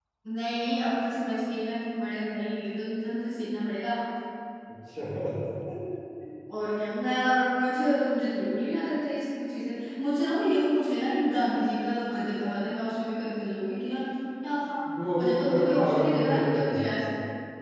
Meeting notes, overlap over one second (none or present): present